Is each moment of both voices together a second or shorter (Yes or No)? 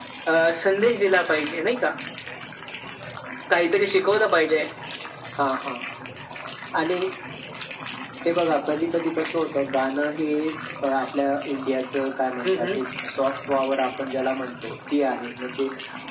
Yes